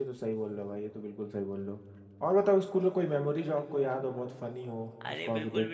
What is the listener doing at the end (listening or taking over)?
taking over